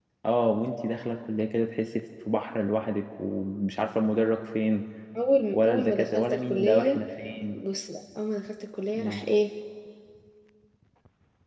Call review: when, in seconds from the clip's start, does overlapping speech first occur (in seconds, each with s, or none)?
5.5 s